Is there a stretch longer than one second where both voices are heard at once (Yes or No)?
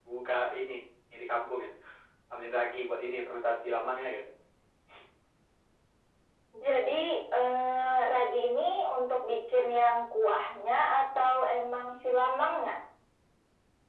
No